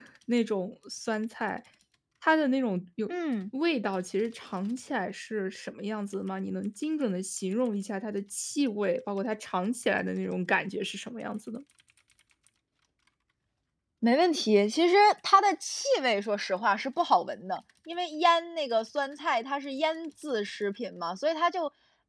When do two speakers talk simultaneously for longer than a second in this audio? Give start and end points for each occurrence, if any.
none

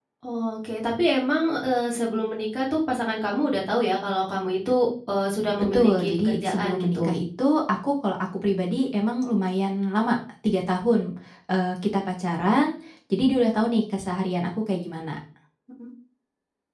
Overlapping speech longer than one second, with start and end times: 5.7-7.1

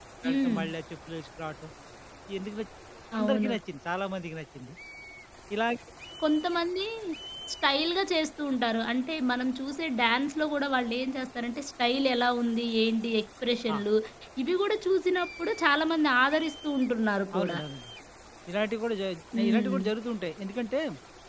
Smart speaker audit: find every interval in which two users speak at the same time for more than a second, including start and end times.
none

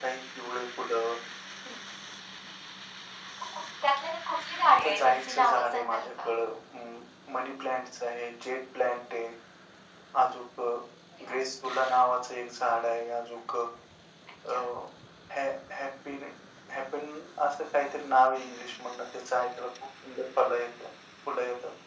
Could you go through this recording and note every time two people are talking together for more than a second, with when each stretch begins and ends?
4.7-6.3

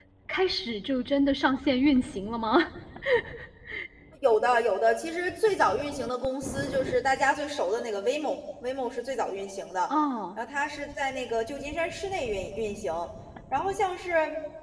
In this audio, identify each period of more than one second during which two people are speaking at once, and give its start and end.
none

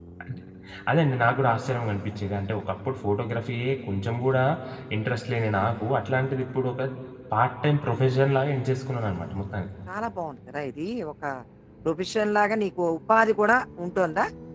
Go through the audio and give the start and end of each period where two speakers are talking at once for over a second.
none

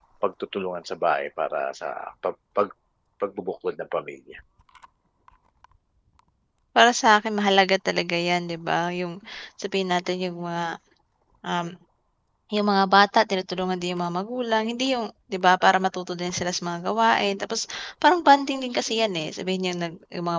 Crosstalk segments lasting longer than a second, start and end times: none

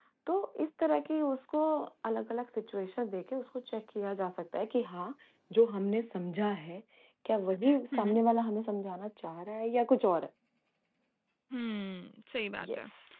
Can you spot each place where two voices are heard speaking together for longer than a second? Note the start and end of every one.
none

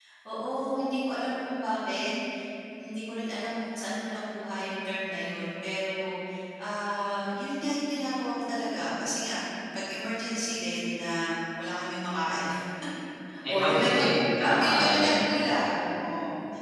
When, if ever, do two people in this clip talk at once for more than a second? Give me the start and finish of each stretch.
13.5-15.2

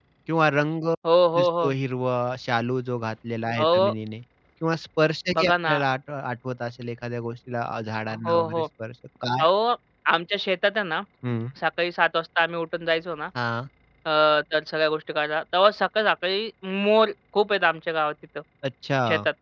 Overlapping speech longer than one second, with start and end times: none

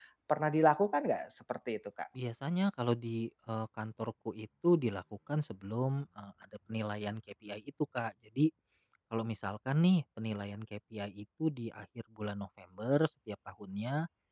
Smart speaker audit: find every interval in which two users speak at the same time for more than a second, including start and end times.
none

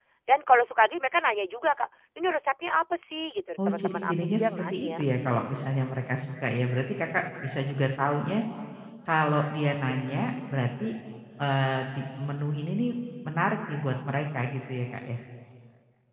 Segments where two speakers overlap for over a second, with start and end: 3.7-5.0

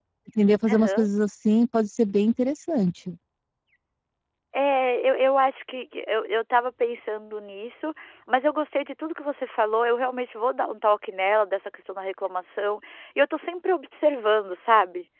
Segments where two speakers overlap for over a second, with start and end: none

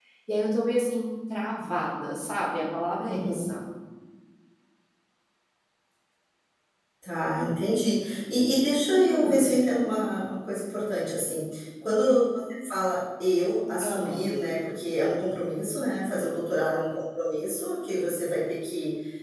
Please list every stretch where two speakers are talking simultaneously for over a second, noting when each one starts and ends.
none

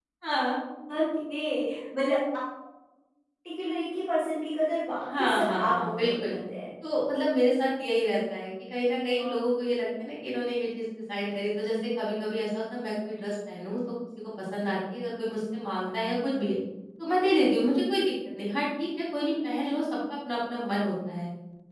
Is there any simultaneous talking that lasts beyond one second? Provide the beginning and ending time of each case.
5.1-6.4

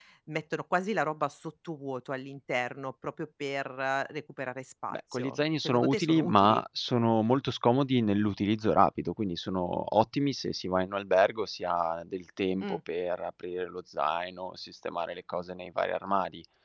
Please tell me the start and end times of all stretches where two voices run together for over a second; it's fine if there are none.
4.9-6.6

